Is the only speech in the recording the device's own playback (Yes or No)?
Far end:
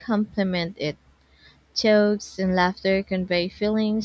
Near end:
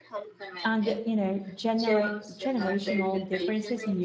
No